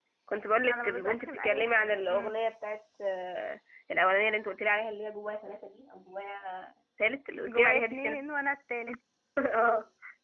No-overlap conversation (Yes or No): No